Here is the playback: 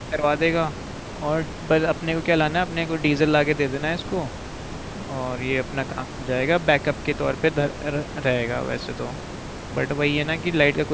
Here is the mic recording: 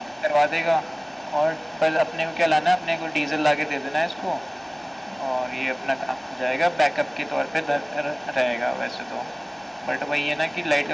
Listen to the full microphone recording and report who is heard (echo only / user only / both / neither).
echo only